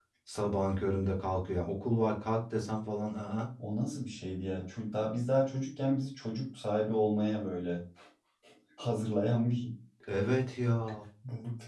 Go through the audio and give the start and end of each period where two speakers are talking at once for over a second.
none

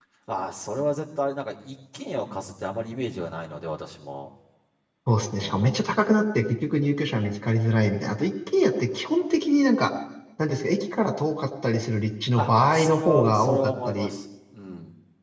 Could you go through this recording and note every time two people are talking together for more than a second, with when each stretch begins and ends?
12.4-14.1

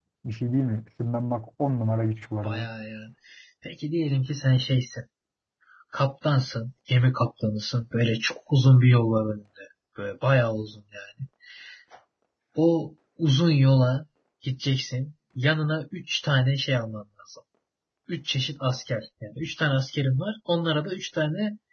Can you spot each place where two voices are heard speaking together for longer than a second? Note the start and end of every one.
none

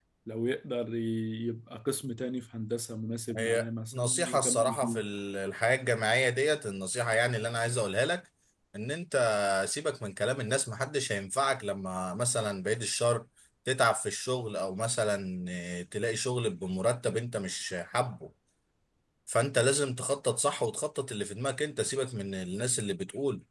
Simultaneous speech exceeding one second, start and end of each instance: 3.4-5.0

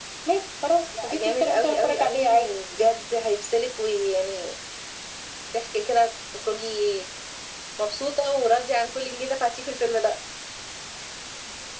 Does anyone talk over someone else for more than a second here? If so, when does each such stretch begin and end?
1.0-2.5

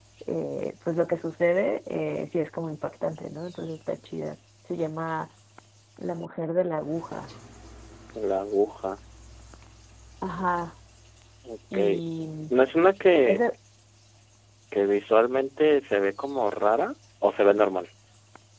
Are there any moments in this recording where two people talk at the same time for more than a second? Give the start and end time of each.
none

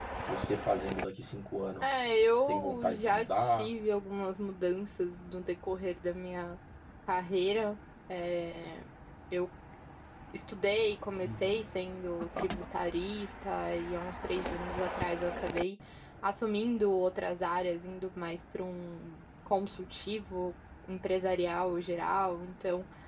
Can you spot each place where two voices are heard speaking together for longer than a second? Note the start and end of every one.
2.5-3.7

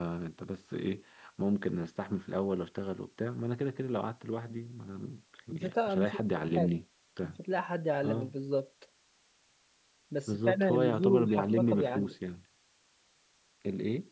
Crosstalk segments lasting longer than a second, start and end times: 5.5-6.7, 10.3-12.1

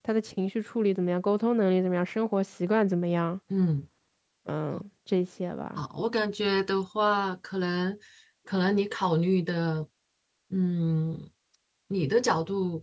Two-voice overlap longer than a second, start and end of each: none

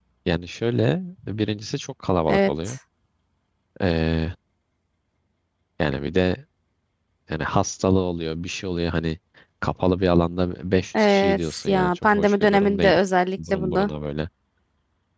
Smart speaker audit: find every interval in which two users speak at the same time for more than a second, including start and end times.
11.0-12.9

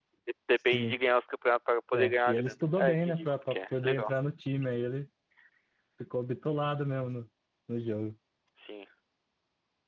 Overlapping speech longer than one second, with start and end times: 1.9-4.1

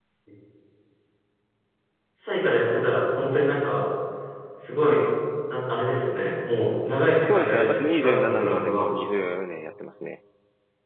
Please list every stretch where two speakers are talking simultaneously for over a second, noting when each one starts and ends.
7.2-8.8

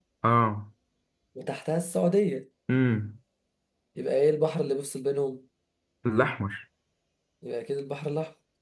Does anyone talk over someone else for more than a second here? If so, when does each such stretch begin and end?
none

